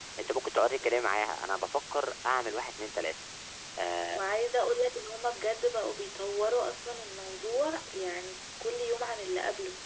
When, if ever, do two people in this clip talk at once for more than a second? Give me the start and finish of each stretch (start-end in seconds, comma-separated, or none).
none